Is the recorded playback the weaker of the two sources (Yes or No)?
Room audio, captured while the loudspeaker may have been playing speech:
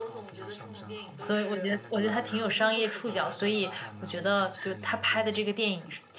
Yes